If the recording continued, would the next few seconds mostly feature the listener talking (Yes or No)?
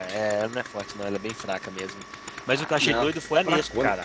No